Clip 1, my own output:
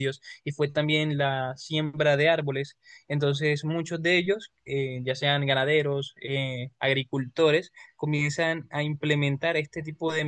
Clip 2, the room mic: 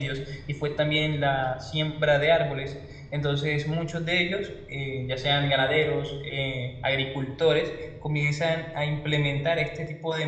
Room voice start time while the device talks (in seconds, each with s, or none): none